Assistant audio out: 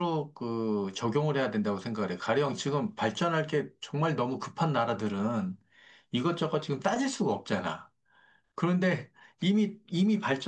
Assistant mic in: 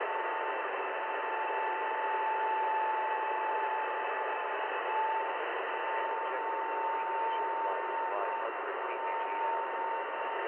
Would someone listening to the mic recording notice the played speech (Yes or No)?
No